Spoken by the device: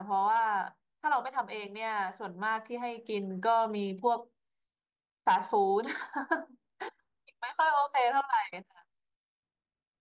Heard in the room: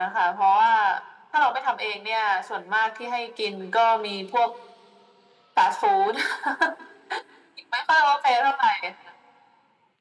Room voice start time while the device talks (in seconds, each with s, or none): none